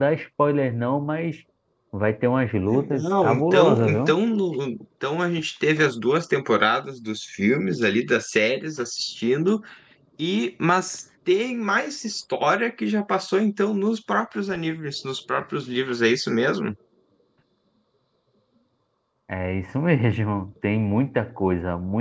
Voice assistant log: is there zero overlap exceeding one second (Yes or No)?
No